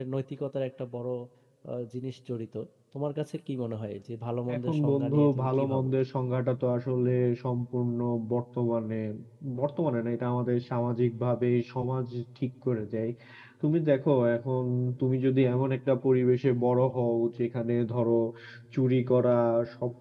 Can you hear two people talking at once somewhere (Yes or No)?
Yes